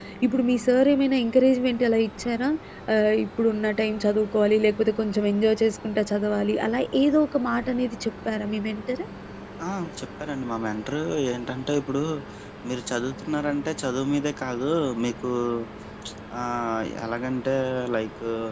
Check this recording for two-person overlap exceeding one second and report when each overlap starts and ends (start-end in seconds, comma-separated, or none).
none